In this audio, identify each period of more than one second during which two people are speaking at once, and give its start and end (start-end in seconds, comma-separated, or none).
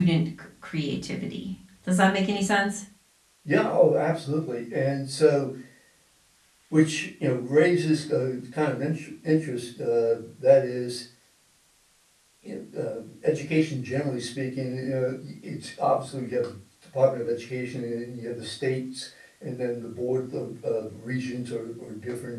none